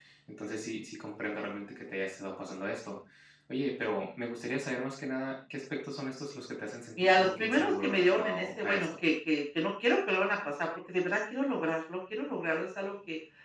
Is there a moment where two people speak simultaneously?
Yes, from 7.0 s

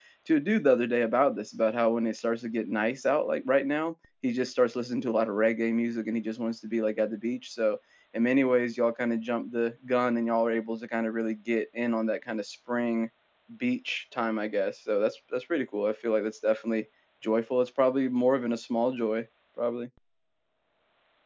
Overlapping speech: No

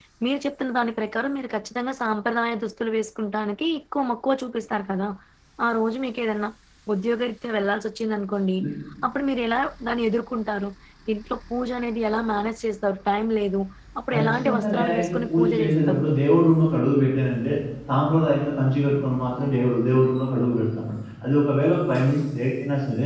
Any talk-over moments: Yes, from 14.1 s

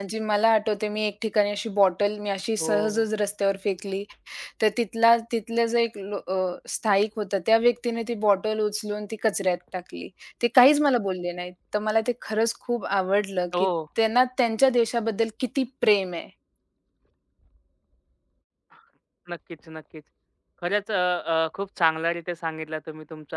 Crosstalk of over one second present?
No

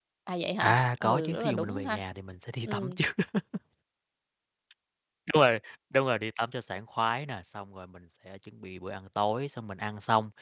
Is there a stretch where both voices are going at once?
Yes, from 0.6 s

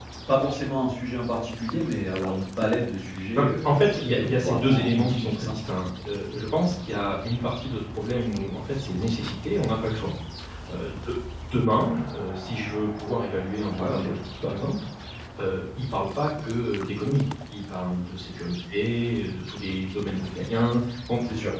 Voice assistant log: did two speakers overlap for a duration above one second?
Yes, from 3.4 s

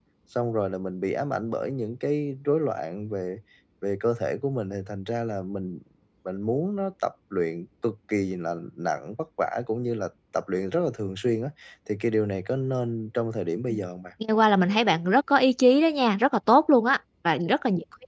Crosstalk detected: No

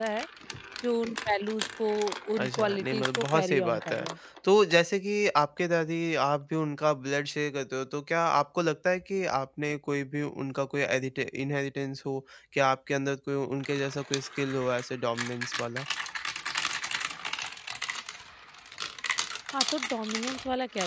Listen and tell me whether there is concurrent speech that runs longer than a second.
Yes, from 2.4 s

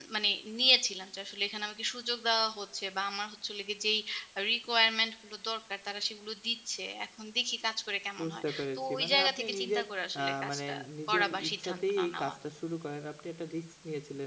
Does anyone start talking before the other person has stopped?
Yes, from 8.2 s

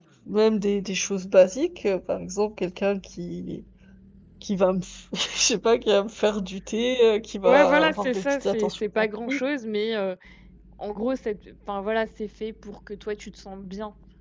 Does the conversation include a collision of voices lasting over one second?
Yes, from 7.4 s

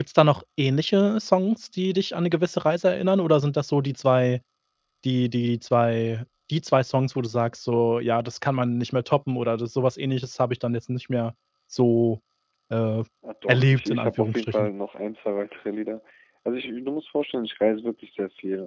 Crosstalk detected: Yes, from 13.5 s

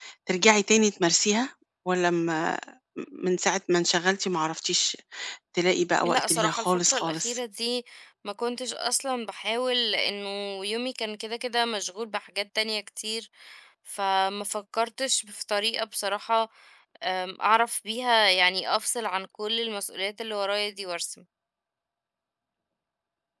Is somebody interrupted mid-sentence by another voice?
Yes, from 6.0 s

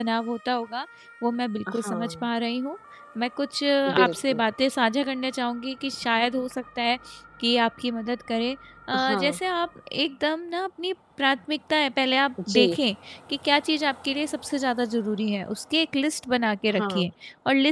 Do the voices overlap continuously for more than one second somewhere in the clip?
No

